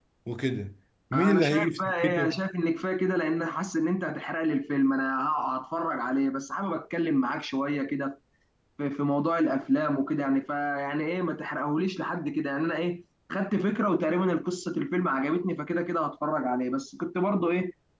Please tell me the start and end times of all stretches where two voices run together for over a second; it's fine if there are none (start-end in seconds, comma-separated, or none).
1.1-2.4